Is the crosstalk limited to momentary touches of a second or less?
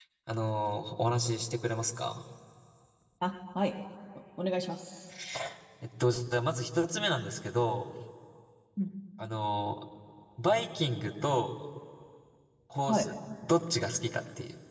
Yes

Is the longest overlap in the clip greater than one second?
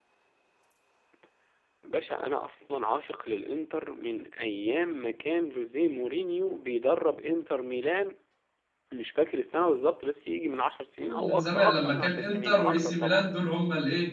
Yes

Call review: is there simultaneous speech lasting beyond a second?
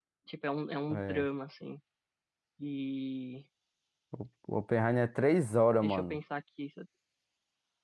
No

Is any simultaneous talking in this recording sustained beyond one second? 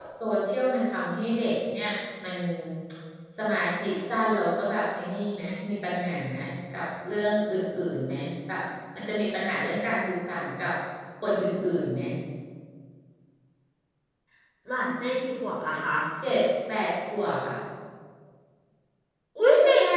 No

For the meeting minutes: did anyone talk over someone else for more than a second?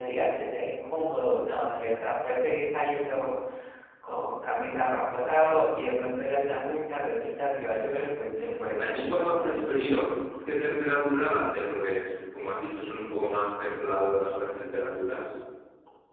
Yes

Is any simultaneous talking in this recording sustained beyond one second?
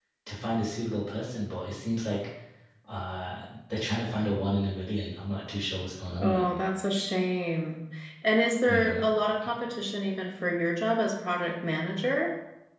No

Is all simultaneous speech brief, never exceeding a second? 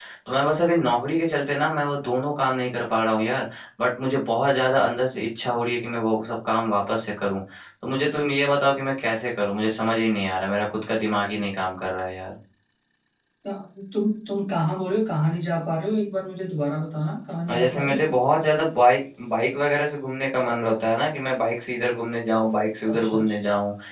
Yes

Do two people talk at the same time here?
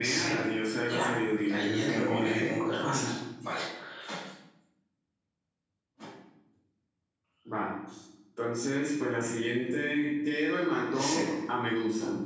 Yes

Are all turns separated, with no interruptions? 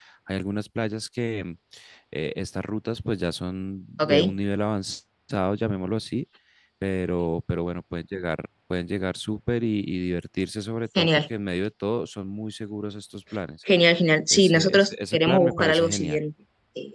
No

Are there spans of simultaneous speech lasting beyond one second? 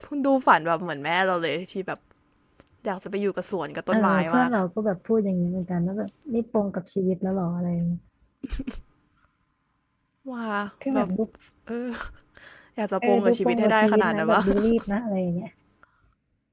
Yes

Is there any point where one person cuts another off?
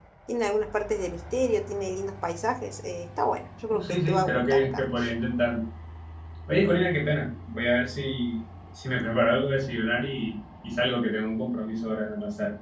Yes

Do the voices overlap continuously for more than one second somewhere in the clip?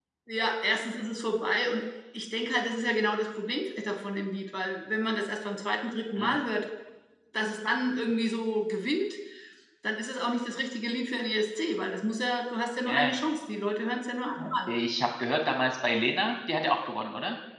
No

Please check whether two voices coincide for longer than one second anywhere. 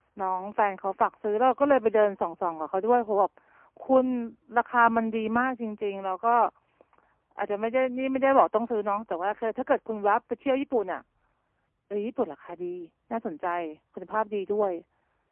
No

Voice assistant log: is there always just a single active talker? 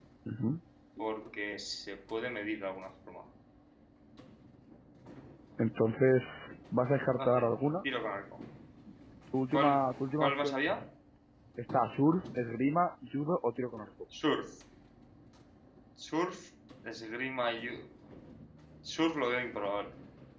No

